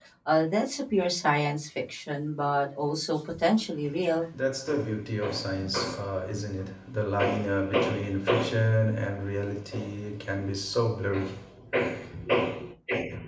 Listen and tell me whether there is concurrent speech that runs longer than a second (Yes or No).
No